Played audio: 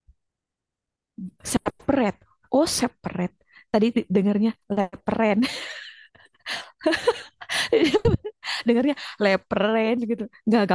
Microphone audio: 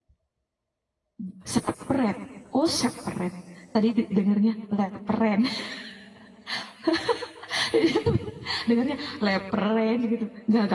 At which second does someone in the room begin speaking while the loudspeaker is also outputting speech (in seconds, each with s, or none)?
none